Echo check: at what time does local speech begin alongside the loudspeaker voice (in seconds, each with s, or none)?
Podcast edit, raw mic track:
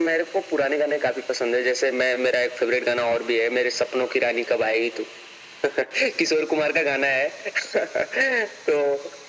none